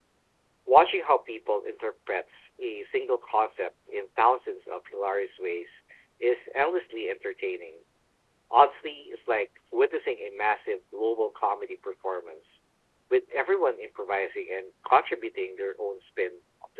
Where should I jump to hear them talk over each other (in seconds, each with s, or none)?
none